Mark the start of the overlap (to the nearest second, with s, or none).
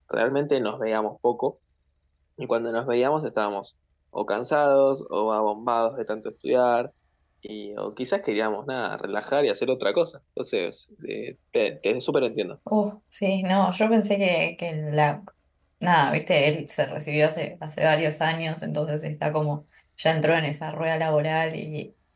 none